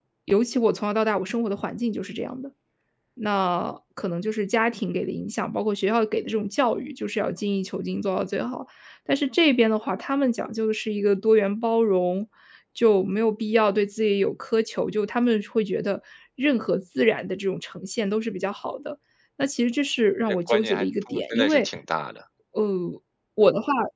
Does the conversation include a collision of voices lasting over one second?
Yes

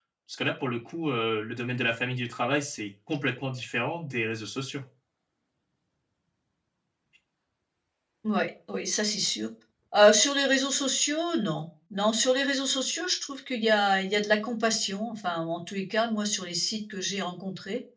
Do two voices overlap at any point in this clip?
No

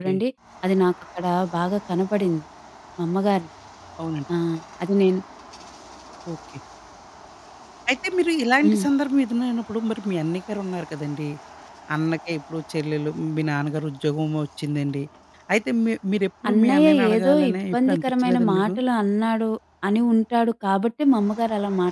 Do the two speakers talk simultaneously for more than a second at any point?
Yes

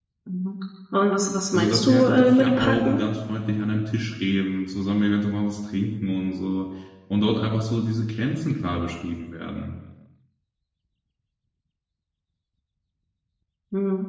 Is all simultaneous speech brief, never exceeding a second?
No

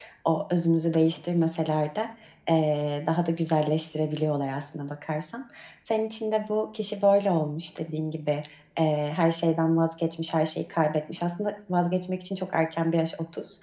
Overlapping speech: No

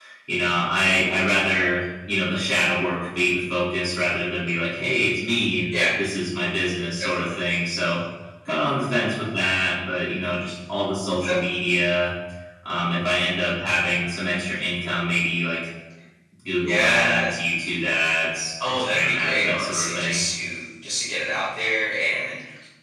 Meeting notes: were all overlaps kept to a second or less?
No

